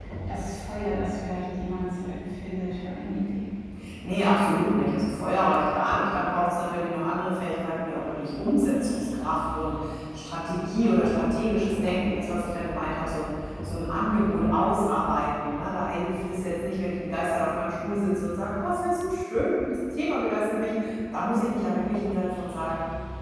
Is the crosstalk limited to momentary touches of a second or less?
Yes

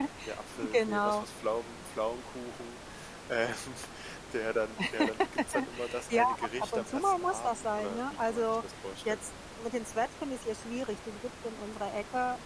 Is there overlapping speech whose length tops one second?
Yes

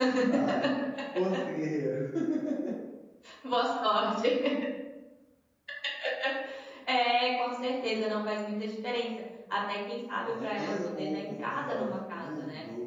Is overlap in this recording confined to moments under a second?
No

